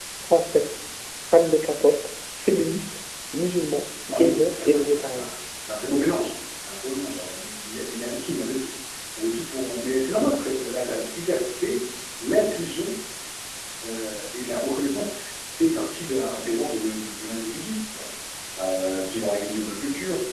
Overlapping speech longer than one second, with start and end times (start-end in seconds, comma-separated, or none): 4.1-5.3